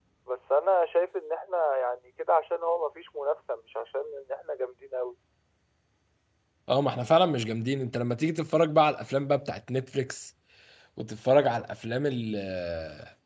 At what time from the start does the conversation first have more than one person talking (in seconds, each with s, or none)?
none